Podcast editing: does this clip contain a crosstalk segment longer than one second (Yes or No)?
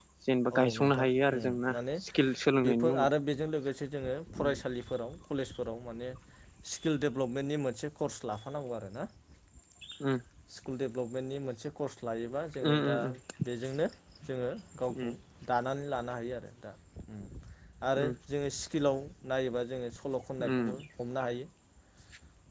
Yes